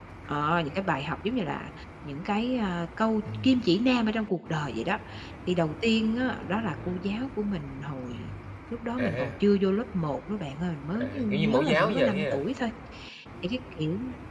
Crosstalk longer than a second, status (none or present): present